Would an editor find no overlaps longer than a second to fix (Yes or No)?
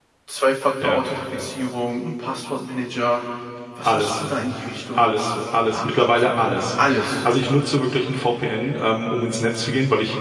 No